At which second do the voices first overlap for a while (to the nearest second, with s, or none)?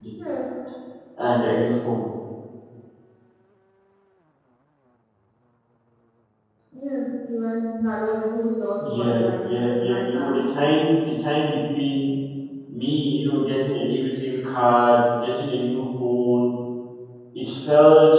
9 s